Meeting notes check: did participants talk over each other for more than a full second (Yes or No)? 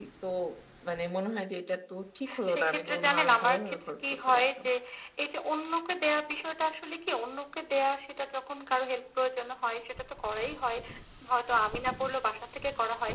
Yes